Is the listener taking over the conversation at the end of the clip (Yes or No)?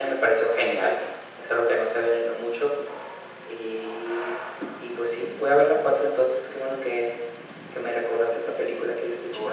Yes